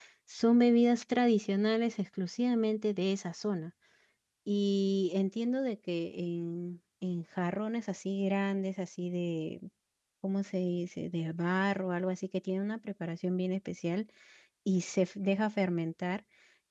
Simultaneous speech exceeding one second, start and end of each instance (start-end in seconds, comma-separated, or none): none